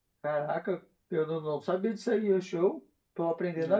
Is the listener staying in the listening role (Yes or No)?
Yes